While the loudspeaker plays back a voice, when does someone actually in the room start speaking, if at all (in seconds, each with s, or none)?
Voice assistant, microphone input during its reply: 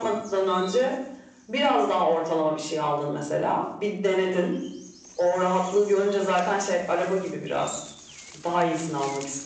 none